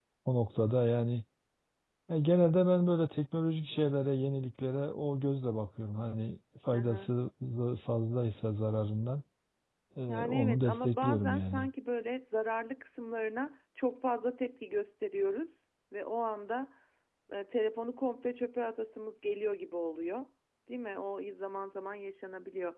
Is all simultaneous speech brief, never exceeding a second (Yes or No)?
No